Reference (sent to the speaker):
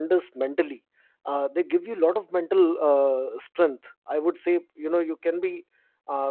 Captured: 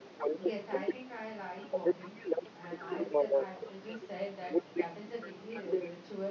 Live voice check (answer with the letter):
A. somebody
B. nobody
A